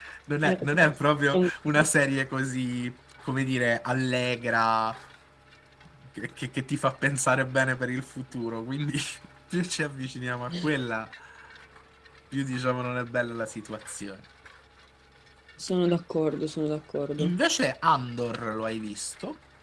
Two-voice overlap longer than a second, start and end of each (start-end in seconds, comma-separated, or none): none